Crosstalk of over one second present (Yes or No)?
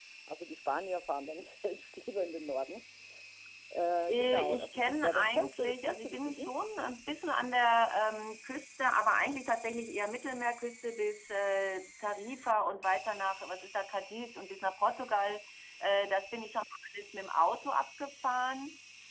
Yes